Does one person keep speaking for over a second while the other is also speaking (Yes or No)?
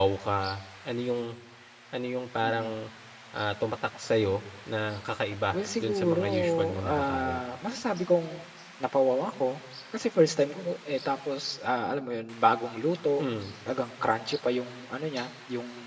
Yes